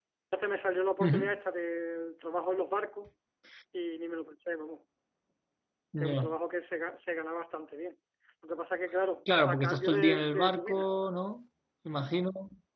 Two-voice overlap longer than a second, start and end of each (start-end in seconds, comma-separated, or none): 9.5-10.9